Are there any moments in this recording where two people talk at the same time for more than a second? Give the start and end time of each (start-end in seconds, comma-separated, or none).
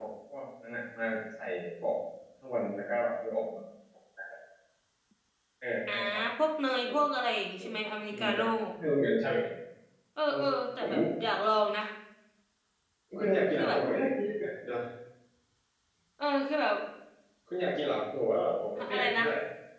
none